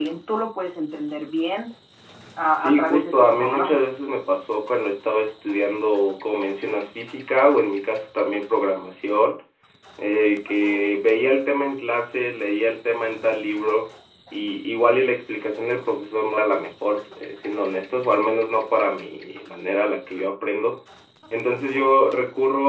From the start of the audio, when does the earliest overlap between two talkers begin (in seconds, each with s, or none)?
2.5 s